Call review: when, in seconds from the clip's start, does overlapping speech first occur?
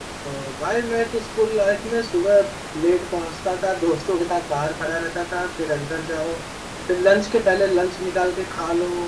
none

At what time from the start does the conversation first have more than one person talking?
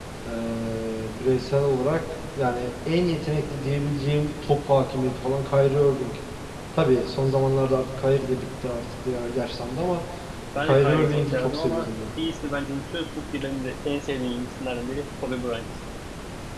11 s

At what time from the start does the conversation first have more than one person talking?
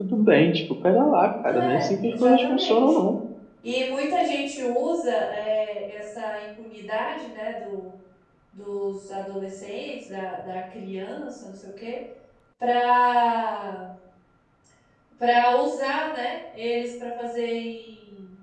1 s

